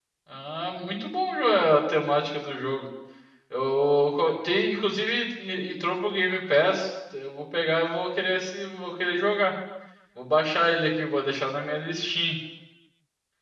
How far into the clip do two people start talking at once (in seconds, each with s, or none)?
none